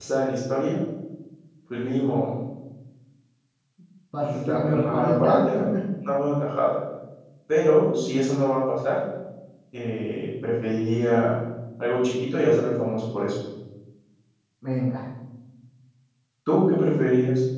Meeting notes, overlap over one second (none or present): present